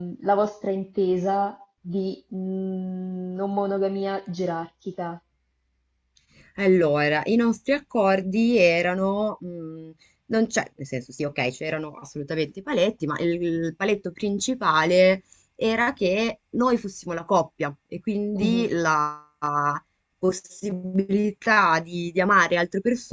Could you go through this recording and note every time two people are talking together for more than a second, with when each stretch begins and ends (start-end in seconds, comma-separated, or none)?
none